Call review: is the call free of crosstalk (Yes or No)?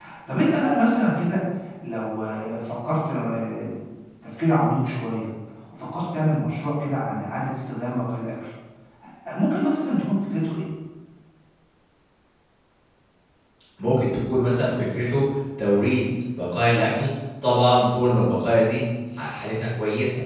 Yes